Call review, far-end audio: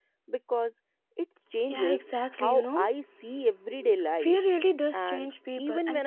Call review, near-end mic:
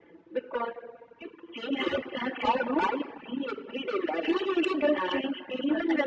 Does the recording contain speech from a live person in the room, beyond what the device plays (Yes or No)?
No